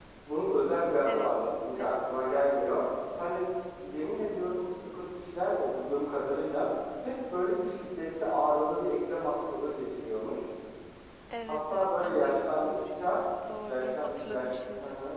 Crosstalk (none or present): present